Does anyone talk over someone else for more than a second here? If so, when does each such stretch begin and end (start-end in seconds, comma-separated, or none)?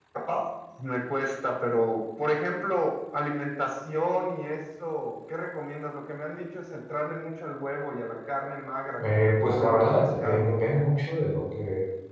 9.0-10.6